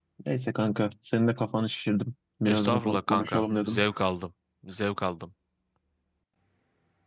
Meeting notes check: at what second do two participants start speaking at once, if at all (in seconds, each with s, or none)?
2.5 s